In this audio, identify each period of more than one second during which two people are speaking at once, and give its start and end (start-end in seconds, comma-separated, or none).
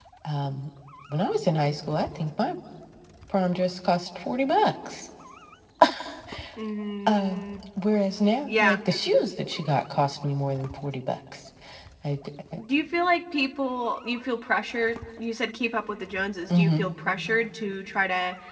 none